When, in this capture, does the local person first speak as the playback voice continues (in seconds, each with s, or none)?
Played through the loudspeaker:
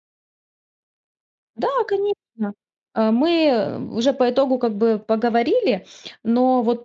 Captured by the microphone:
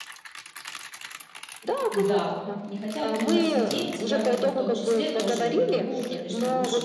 1.9 s